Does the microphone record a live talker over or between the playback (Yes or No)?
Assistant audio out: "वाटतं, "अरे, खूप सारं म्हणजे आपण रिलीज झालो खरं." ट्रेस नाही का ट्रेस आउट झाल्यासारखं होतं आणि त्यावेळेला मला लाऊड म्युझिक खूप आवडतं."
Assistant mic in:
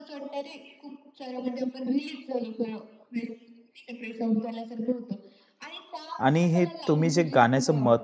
Yes